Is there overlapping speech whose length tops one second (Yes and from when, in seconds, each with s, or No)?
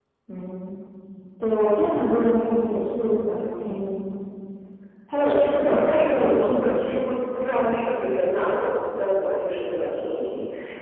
Yes, from 5.2 s